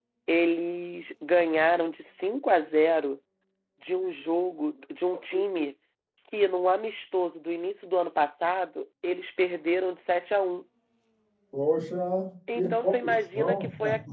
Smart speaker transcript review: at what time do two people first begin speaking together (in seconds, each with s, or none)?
12.5 s